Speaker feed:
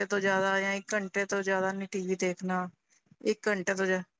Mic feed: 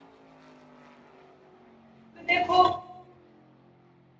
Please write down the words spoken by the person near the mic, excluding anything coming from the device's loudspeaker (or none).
ਦੇਖੋ